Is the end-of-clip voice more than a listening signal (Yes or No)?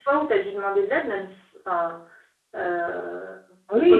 Yes